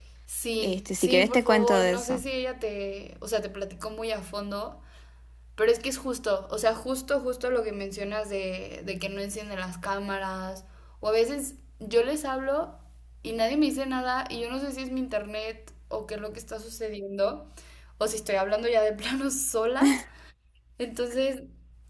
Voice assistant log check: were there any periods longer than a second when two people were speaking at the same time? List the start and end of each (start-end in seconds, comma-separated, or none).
0.6-2.2